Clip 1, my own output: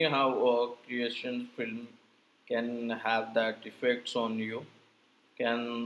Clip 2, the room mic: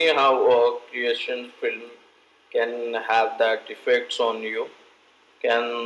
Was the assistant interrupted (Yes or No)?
No